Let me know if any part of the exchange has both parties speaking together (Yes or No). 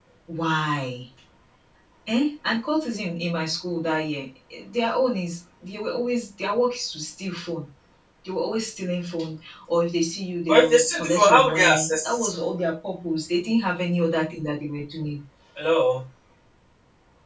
Yes